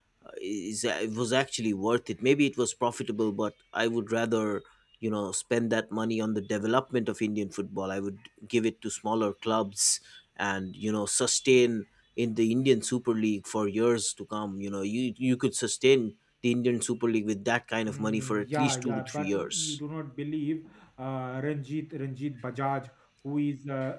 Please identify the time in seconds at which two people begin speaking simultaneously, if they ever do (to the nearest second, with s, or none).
18 s